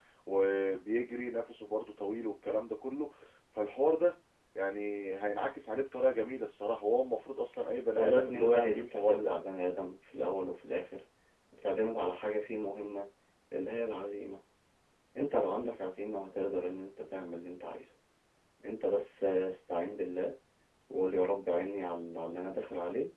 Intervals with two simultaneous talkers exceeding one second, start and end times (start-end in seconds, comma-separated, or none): 8.0-9.3